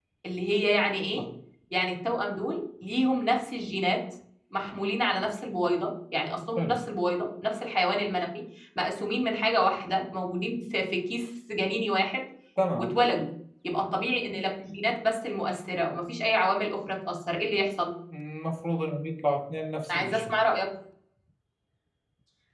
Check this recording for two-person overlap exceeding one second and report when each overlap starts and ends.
none

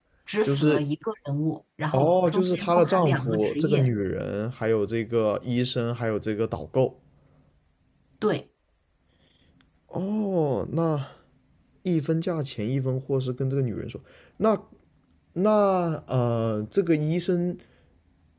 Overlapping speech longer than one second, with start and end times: 1.9-3.9

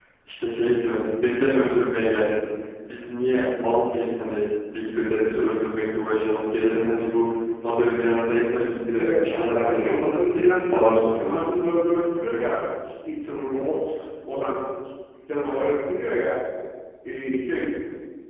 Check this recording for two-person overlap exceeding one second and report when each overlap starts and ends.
9.0-11.5

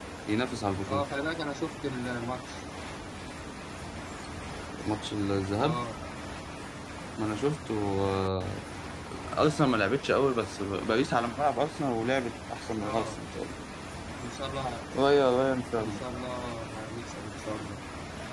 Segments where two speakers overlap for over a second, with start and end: none

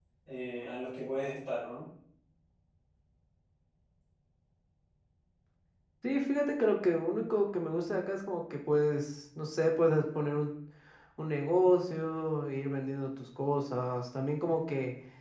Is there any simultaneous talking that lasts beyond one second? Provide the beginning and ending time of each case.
none

